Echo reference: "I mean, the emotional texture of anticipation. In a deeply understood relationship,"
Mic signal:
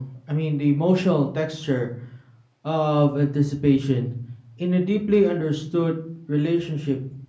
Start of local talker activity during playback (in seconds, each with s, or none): none